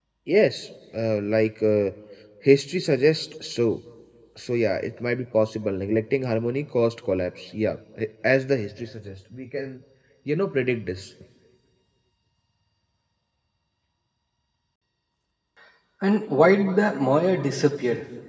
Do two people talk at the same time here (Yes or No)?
No